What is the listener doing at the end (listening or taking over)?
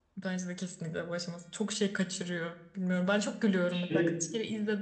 listening